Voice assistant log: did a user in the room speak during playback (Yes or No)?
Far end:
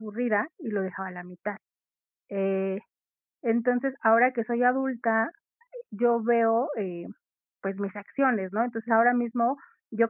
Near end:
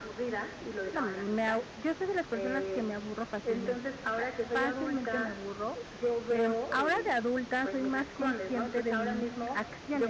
Yes